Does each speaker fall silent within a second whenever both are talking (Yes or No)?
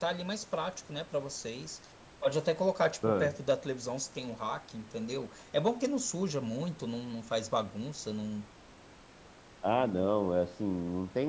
Yes